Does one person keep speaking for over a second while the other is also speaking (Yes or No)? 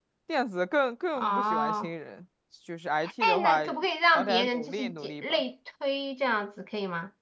Yes